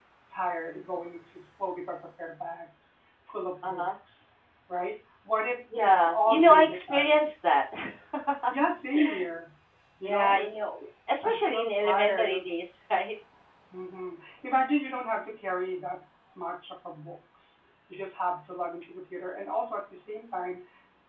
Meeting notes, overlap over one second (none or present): present